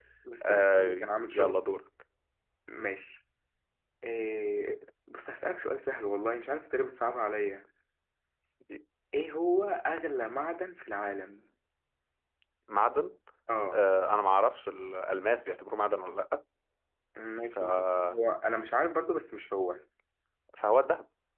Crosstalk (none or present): present